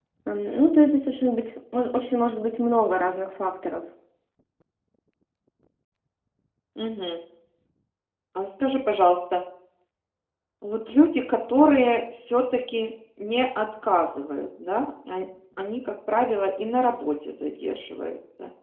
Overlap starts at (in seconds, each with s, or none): none